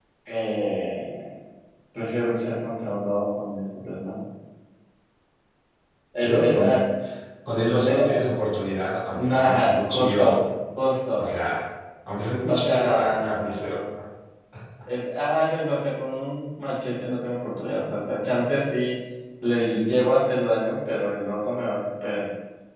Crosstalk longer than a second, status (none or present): present